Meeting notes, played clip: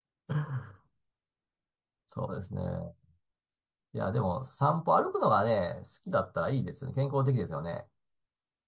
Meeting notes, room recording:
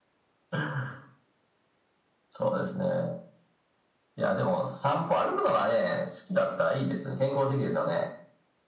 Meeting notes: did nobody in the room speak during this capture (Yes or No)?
Yes